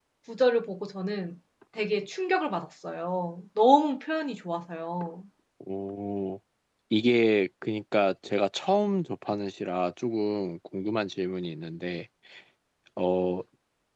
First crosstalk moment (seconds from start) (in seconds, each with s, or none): none